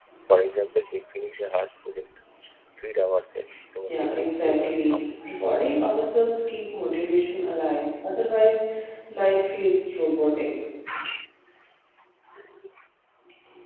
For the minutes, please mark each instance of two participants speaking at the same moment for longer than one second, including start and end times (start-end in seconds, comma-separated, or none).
3.8-5.1